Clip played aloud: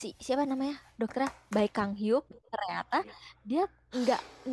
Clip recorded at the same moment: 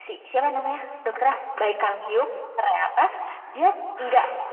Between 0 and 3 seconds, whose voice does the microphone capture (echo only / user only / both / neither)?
echo only